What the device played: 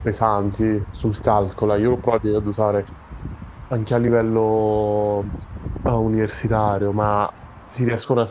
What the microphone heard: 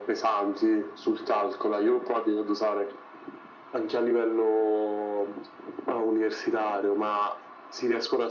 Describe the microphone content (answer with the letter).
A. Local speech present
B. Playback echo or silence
B